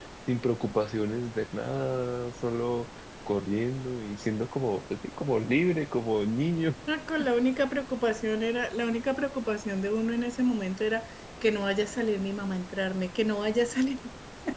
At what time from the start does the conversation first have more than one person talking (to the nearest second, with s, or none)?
none